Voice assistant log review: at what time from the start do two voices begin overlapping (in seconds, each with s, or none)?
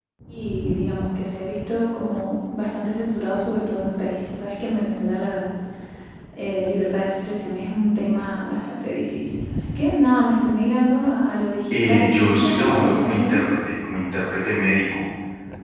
11.7 s